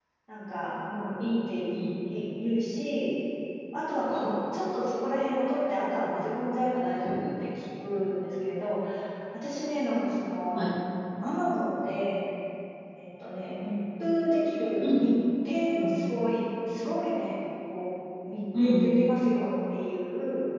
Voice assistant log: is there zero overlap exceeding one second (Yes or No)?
Yes